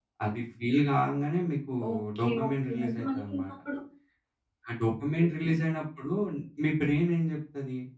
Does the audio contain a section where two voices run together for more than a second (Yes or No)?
Yes